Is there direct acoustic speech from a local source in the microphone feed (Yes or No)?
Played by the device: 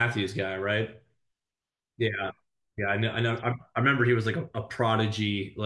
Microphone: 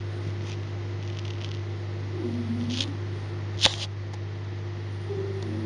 No